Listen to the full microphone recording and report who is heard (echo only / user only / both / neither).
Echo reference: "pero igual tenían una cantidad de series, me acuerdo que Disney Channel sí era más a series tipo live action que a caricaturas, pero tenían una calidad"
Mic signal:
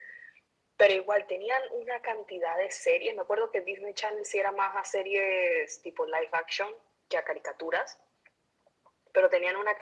echo only